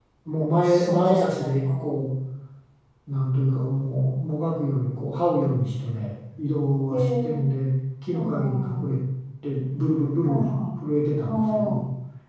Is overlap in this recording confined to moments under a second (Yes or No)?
No